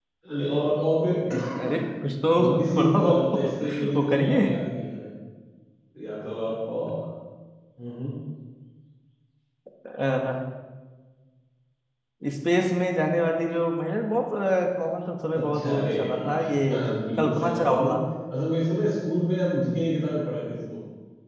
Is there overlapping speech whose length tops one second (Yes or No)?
Yes